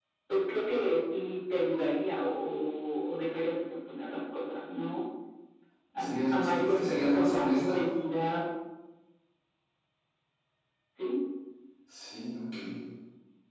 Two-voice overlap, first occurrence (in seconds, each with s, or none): 6.0 s